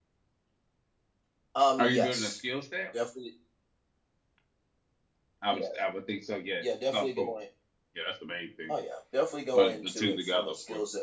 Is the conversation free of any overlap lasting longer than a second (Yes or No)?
No